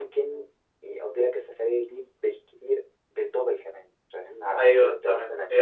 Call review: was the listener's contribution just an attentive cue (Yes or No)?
No